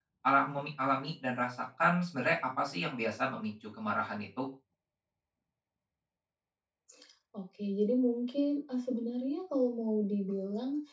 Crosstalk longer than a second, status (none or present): none